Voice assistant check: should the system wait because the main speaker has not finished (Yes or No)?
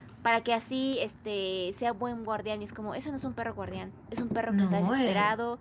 Yes